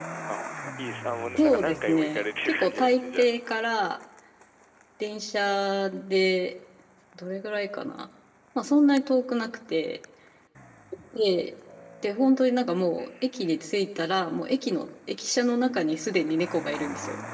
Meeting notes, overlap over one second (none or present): present